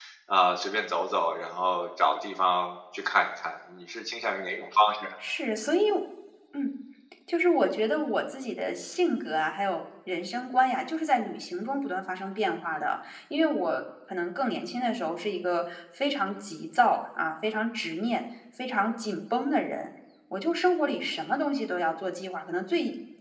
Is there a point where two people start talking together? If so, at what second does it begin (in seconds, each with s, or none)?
none